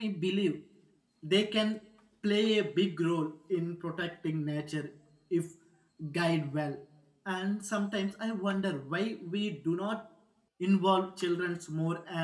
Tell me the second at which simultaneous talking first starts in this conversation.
none

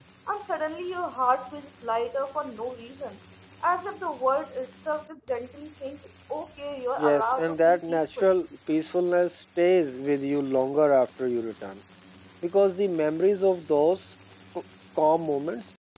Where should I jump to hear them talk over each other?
7.0 s

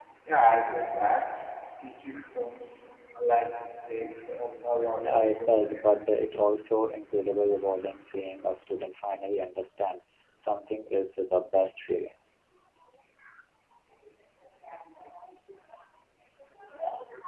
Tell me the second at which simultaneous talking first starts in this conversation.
5.0 s

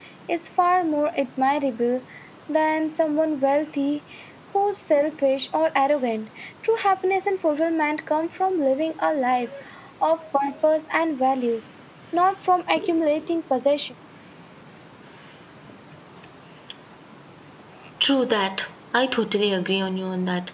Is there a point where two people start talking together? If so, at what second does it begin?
none

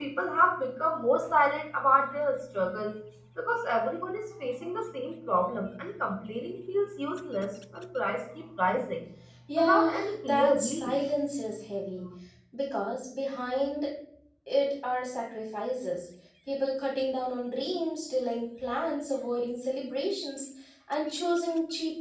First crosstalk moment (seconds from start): 9.6 s

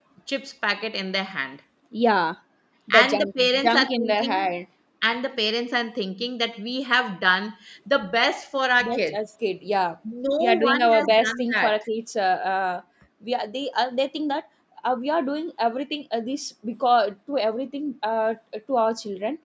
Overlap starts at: 2.9 s

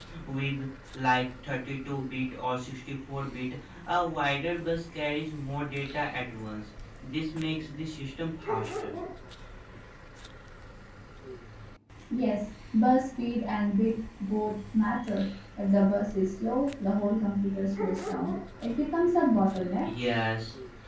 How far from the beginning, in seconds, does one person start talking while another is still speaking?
none

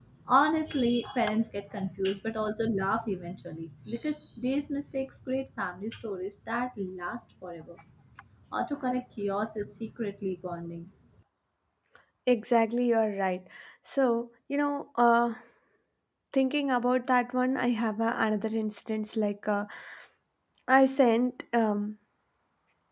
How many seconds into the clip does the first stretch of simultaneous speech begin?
none

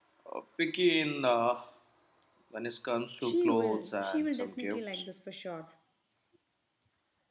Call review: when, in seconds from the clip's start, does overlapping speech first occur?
3.2 s

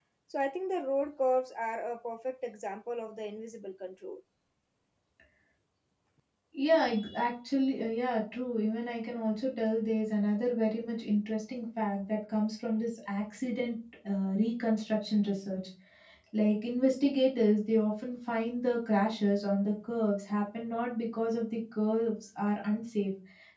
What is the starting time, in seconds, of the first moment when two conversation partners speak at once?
none

